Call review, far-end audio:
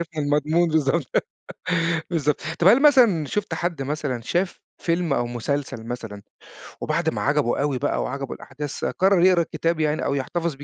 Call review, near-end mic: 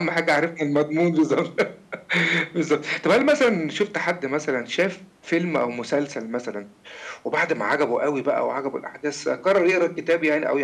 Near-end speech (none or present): none